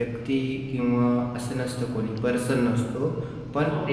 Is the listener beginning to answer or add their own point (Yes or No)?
Yes